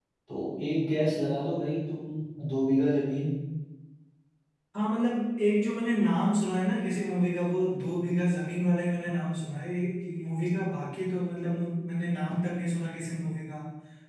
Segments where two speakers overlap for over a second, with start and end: none

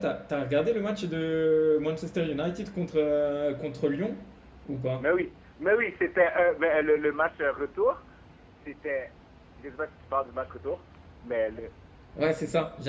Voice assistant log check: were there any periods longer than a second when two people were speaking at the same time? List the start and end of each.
none

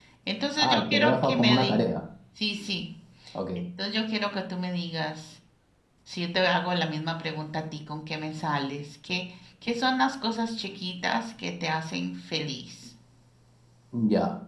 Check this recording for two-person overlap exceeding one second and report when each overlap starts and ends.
0.6-1.8

